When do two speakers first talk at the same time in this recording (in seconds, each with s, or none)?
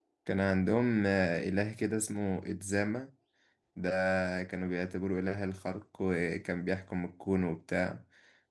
none